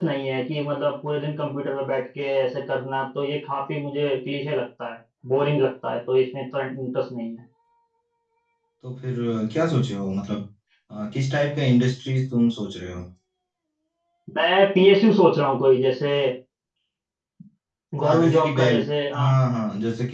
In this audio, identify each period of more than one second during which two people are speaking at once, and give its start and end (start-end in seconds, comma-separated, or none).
18.0-19.3